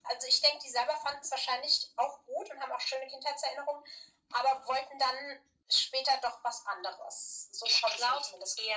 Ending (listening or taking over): taking over